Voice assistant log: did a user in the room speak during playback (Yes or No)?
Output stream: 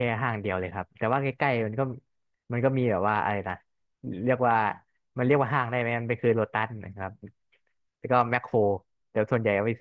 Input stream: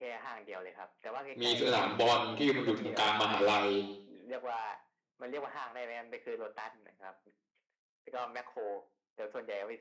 Yes